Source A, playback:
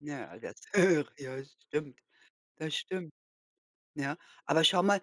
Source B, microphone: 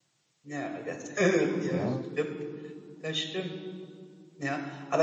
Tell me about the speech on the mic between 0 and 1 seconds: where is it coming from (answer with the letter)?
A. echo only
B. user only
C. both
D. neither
A